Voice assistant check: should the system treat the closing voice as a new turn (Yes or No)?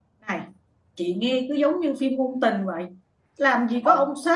No